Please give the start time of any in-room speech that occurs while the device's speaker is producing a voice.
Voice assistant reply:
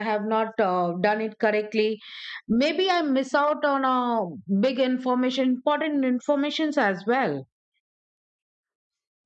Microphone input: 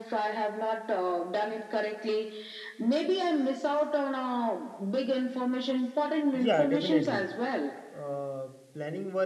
6.3 s

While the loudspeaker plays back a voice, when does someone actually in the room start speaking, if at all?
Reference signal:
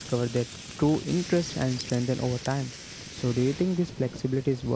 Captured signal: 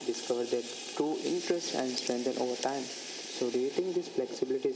none

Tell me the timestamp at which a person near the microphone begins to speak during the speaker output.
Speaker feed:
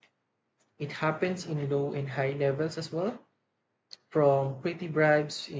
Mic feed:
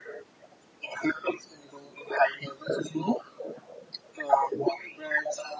none

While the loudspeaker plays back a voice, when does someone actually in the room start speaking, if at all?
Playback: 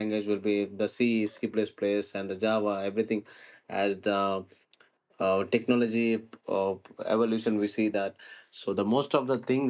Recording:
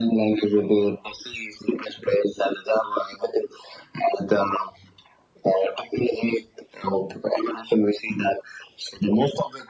none

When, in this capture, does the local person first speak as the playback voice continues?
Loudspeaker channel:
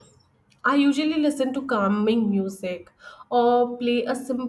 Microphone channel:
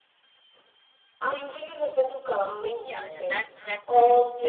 2.7 s

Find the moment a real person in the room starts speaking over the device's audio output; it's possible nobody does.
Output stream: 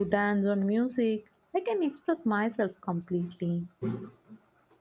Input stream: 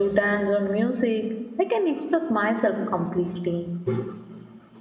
none

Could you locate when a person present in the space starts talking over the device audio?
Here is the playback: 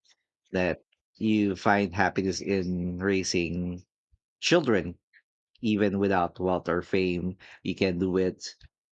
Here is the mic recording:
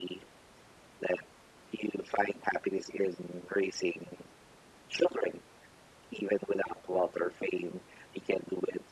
none

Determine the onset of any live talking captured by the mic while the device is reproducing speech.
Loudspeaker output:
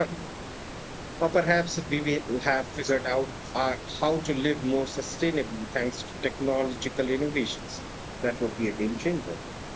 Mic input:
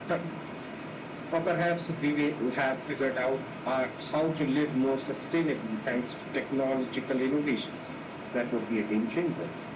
none

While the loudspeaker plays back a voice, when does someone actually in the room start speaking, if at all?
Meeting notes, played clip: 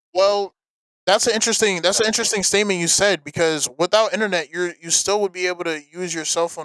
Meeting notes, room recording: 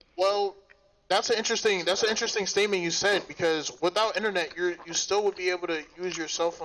none

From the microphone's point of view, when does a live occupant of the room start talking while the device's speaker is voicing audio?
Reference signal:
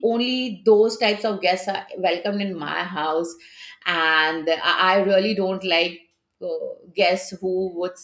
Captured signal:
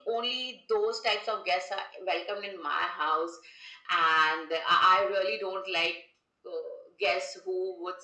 none

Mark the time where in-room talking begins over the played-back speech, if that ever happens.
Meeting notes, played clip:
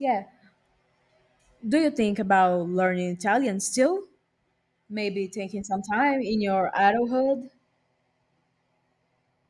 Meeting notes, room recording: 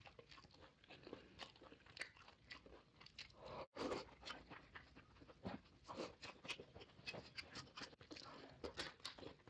none

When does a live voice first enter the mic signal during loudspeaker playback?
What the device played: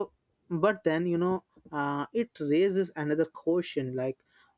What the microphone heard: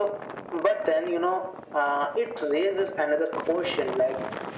none

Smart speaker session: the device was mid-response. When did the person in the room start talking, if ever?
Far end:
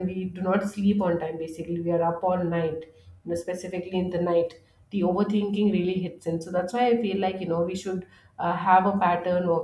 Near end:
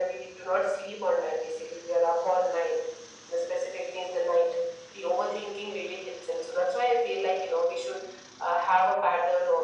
none

